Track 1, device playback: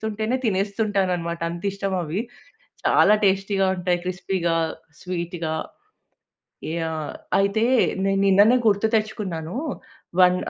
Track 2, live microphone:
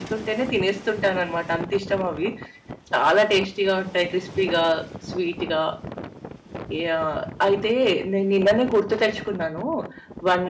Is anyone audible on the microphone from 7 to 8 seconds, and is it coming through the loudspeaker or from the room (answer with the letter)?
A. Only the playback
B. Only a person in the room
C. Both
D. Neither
A